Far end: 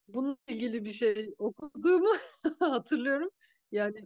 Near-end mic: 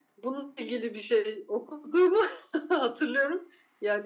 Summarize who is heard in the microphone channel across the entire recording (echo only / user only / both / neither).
echo only